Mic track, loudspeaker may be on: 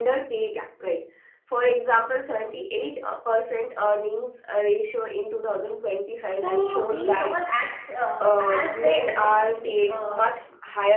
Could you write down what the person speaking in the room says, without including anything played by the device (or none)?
so these all acts uh, has their own unique uh,